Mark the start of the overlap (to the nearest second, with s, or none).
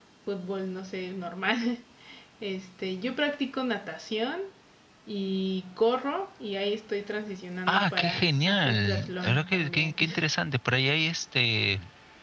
8 s